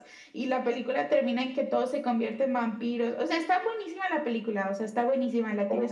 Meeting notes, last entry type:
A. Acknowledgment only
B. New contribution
B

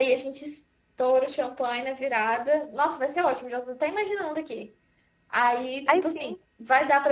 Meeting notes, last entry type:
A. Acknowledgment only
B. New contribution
A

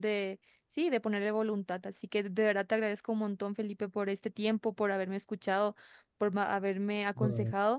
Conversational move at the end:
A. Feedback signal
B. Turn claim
A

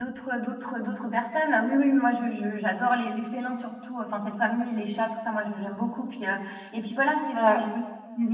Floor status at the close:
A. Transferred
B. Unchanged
B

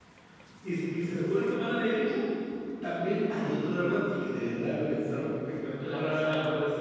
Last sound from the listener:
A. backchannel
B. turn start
A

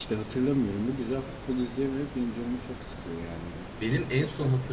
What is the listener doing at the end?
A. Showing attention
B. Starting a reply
B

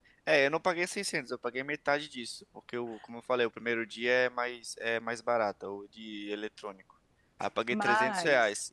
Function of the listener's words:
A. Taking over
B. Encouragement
B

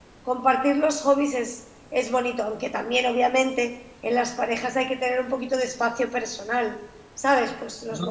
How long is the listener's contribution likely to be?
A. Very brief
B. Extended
A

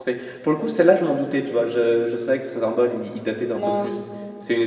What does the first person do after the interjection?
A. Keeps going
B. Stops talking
A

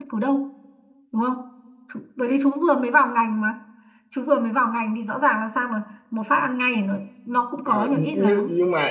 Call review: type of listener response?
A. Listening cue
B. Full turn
B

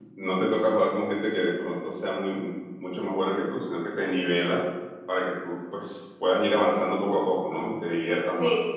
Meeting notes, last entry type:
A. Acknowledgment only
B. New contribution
B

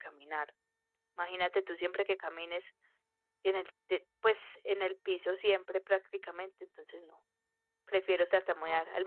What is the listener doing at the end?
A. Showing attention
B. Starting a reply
A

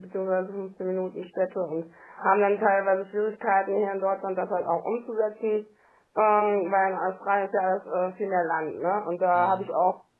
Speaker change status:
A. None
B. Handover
A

